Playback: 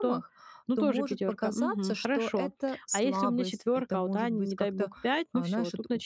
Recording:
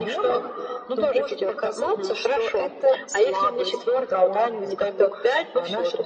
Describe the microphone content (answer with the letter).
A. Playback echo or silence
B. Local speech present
A